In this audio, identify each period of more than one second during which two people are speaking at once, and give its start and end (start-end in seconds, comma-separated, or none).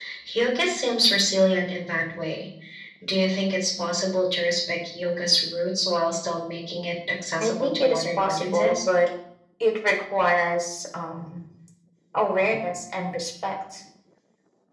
7.4-8.8